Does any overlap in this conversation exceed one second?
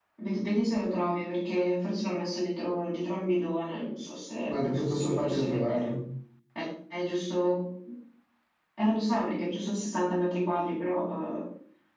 Yes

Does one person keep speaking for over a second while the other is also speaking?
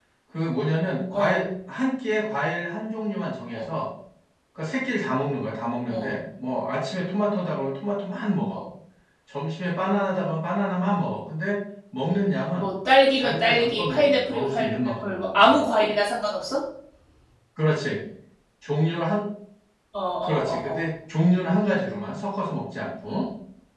Yes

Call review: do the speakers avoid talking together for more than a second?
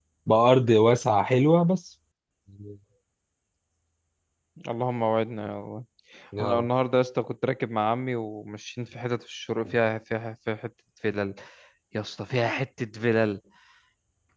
Yes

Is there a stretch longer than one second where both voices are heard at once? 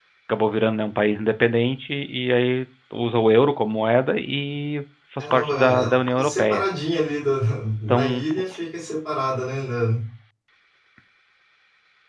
Yes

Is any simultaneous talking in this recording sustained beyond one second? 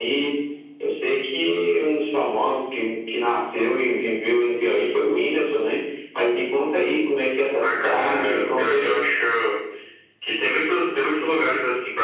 Yes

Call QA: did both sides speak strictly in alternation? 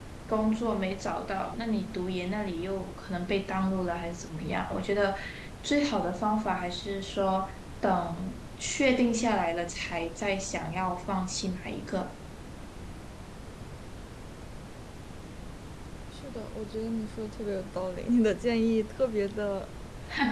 Yes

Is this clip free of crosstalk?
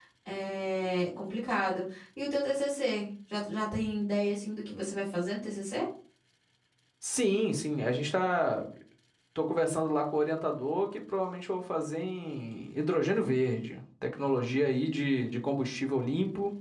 Yes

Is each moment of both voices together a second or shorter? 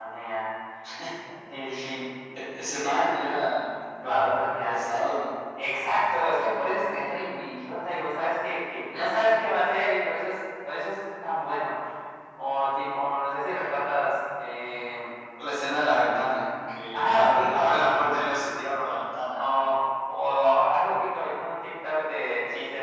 No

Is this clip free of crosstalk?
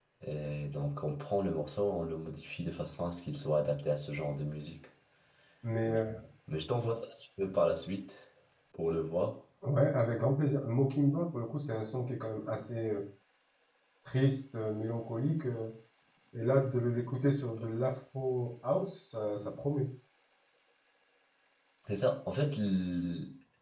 Yes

